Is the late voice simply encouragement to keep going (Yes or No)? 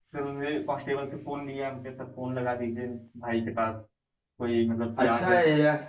No